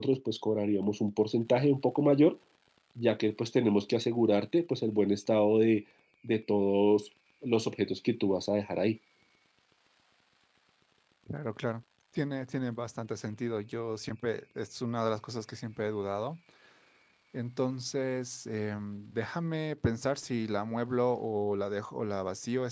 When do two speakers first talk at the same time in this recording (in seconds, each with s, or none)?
none